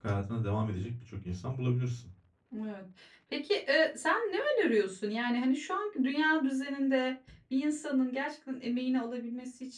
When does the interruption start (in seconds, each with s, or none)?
none